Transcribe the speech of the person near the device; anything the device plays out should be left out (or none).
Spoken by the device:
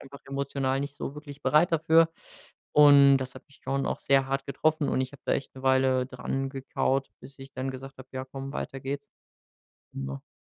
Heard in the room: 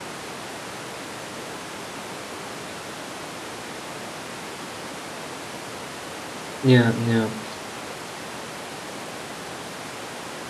Ja, ja.